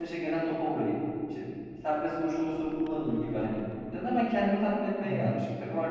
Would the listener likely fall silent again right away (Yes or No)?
Yes